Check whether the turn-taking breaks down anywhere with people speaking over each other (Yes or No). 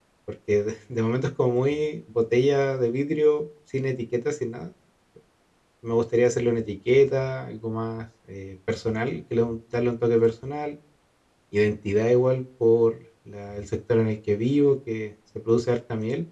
No